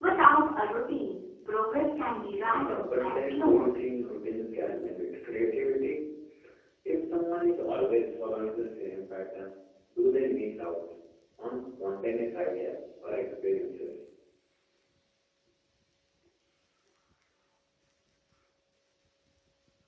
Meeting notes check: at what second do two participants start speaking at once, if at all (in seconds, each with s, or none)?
2.4 s